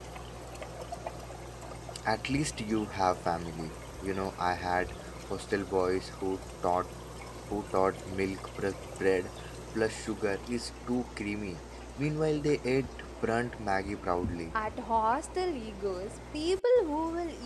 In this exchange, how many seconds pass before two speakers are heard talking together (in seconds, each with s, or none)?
none